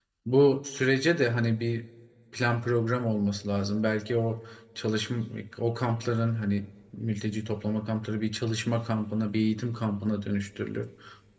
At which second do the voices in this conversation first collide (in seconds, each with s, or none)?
none